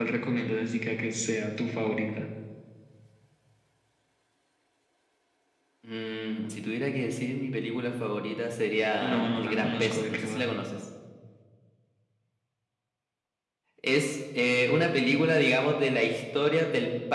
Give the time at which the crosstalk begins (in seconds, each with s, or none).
9.0 s